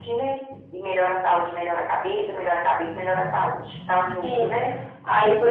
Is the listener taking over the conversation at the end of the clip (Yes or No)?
Yes